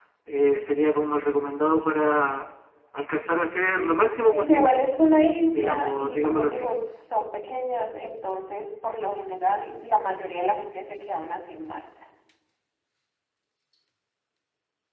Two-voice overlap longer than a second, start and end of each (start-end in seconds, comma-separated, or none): 5.5-6.7